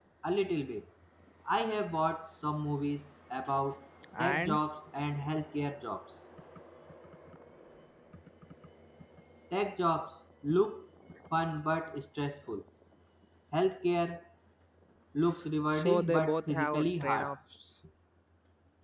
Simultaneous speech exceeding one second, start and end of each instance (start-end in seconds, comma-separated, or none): 15.7-17.3